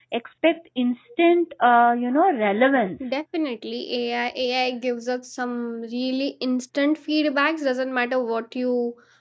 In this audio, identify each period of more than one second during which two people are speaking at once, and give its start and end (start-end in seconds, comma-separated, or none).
none